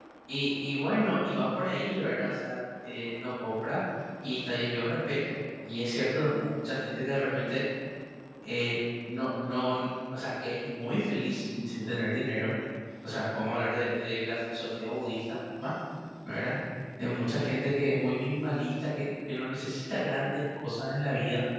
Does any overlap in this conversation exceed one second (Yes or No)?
No